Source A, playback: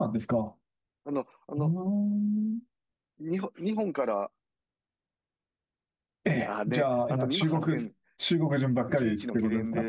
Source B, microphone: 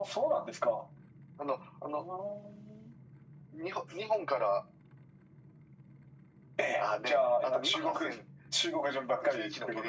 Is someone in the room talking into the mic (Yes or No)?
No